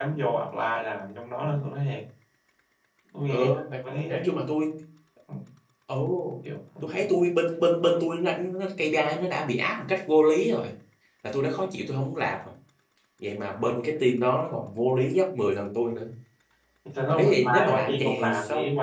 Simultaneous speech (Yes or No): Yes